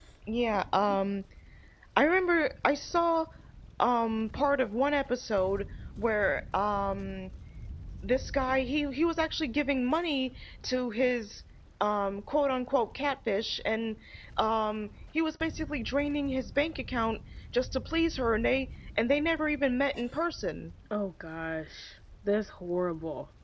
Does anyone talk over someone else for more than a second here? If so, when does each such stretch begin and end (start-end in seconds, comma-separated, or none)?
none